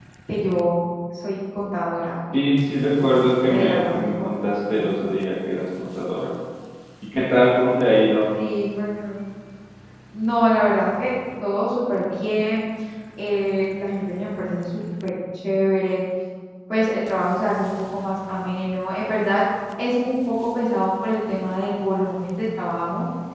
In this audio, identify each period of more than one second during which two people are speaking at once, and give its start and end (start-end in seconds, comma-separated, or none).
3.0-4.8